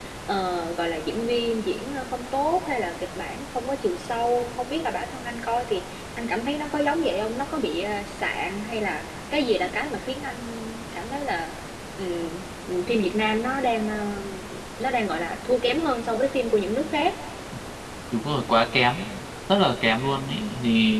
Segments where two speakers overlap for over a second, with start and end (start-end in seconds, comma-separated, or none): none